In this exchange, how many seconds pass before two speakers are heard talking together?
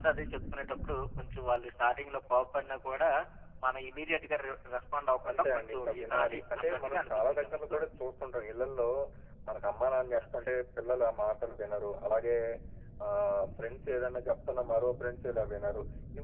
5.3 s

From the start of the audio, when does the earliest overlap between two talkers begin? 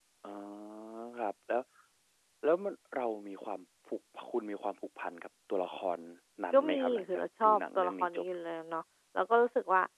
6.5 s

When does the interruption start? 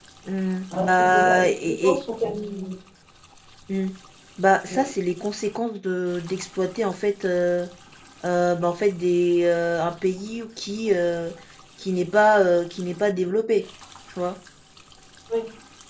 0.8 s

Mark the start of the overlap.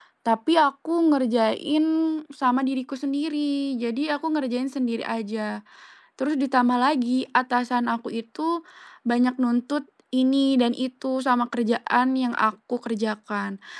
none

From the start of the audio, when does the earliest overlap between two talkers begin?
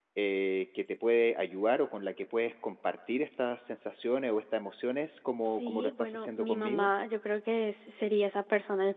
5.4 s

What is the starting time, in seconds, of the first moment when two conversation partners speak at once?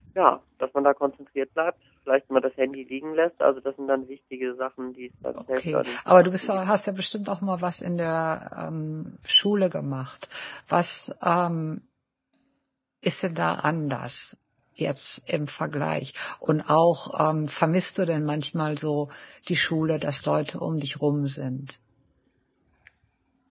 5.3 s

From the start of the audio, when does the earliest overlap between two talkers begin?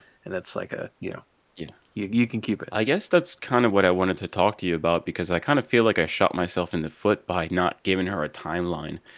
none

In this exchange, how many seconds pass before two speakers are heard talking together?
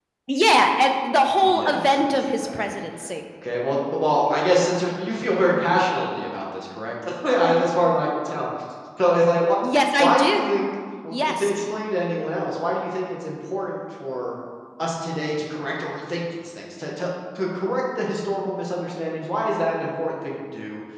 1.4 s

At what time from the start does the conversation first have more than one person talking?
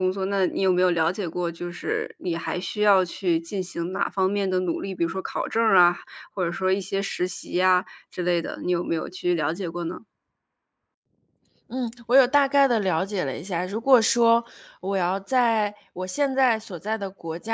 none

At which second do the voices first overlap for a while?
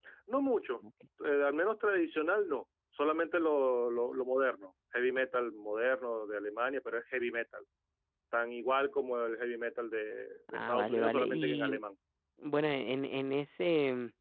10.5 s

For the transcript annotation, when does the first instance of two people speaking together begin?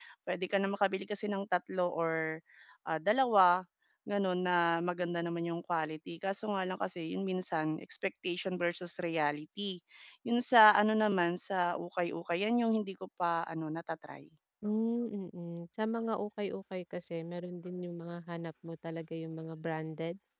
none

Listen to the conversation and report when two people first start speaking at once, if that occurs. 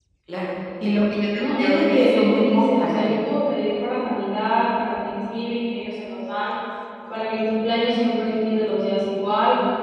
1.3 s

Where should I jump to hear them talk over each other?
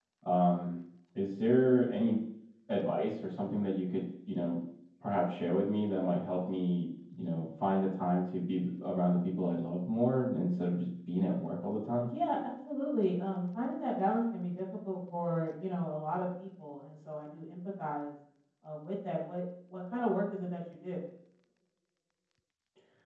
none

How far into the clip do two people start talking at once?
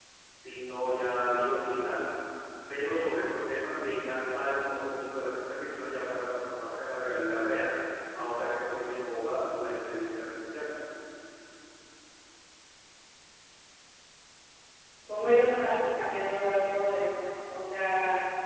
none

